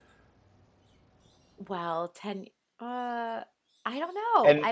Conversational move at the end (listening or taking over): taking over